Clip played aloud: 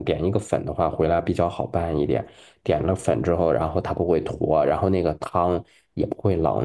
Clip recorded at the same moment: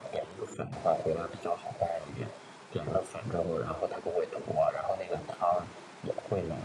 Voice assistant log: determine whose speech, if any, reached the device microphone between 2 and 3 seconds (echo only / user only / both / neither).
echo only